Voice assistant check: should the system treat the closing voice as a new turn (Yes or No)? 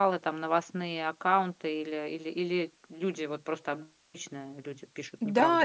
Yes